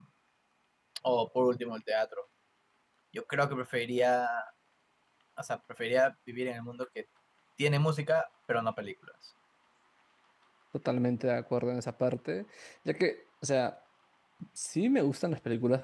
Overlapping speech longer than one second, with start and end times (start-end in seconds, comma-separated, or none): none